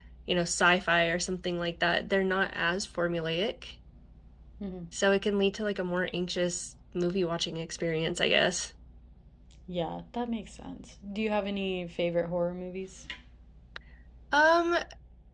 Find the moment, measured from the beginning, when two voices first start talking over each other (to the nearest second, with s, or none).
none